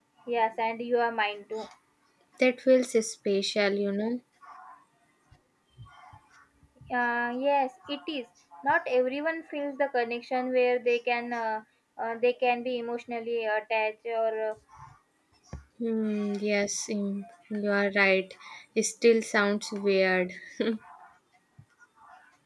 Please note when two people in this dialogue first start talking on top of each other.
none

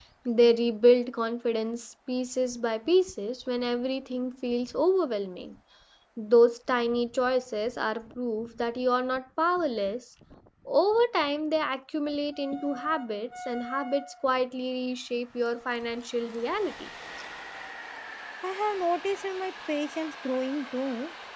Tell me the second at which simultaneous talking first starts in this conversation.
none

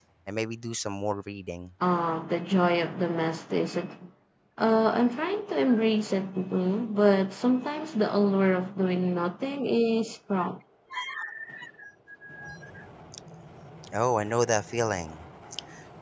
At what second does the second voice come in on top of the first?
none

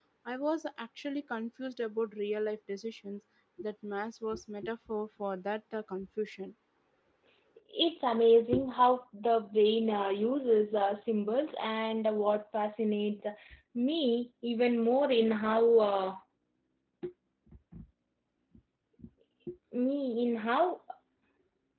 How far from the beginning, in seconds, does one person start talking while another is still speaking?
none

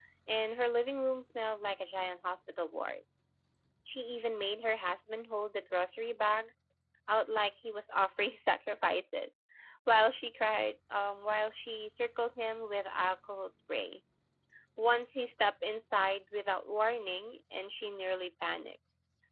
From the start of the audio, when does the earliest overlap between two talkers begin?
none

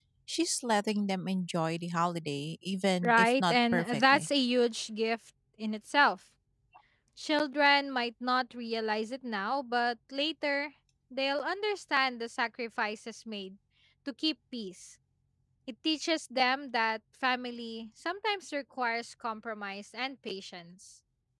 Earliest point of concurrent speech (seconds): 3.0 s

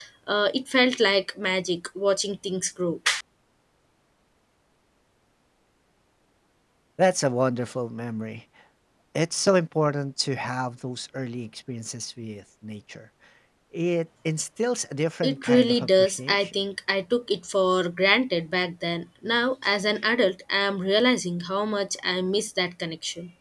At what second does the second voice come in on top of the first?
15.2 s

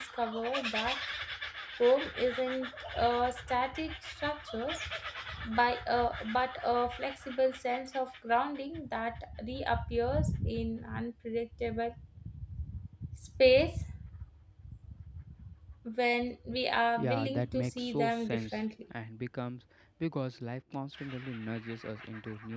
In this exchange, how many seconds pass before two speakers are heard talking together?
17.0 s

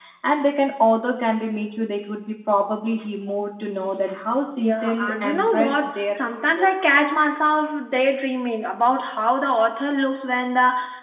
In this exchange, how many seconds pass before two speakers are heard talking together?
4.6 s

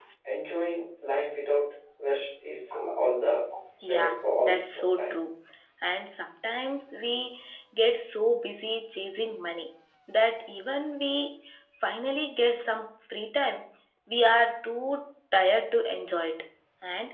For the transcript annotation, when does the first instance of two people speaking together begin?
3.8 s

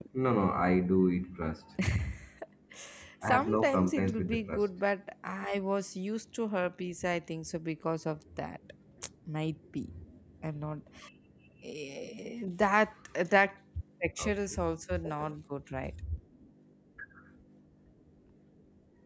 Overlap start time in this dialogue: 3.2 s

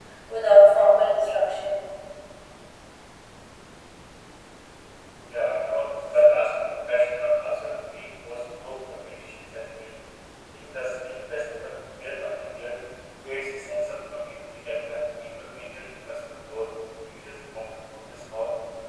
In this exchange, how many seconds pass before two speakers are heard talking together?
none

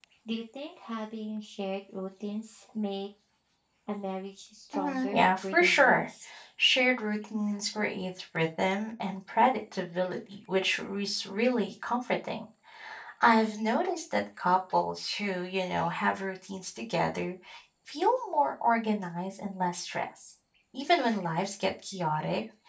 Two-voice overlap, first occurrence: 4.7 s

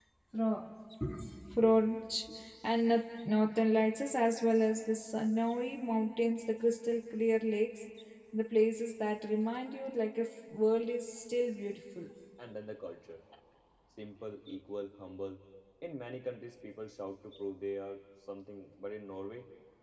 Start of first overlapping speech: none

